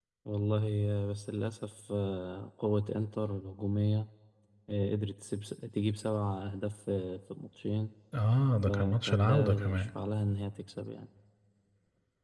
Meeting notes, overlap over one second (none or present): present